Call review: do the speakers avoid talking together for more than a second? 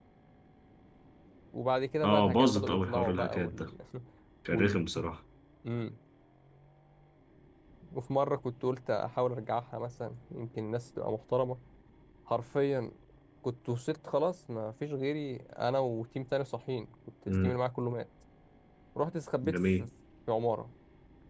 No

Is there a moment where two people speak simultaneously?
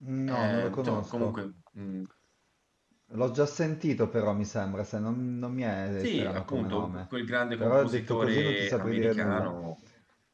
Yes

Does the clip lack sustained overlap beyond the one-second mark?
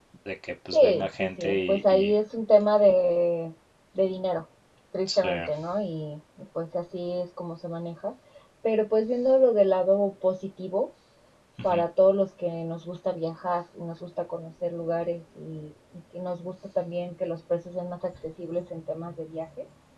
No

